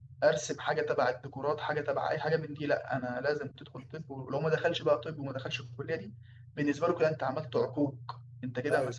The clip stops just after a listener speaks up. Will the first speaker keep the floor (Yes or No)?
Yes